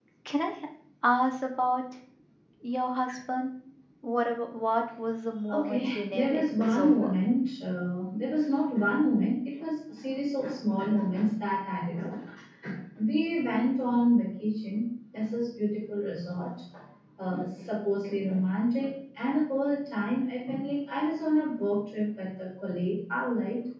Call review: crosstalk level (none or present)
present